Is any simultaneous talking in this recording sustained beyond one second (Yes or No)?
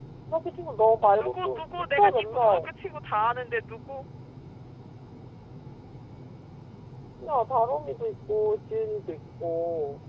Yes